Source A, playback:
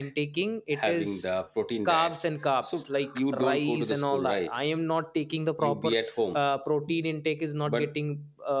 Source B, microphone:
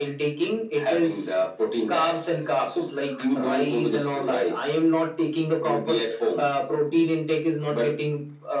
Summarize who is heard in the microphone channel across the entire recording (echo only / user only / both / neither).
echo only